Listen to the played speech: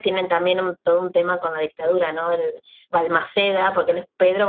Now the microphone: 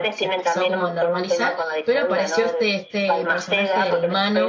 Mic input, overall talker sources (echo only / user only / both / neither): both